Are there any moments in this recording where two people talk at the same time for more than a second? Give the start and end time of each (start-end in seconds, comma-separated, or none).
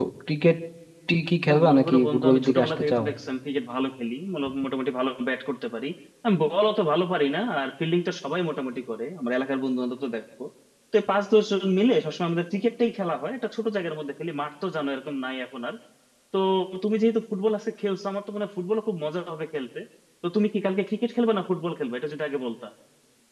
1.5-3.0